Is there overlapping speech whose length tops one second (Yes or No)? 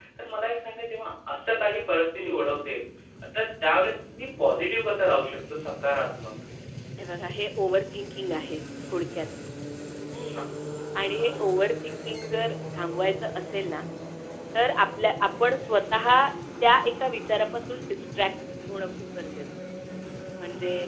No